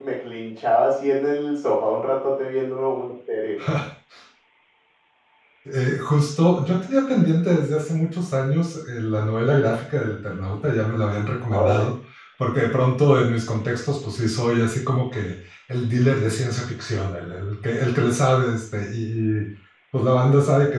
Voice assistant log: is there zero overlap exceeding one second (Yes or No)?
Yes